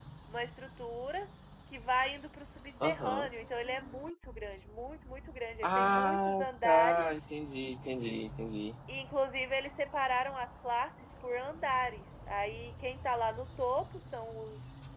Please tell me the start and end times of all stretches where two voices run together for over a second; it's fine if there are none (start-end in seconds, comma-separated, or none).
5.6-7.1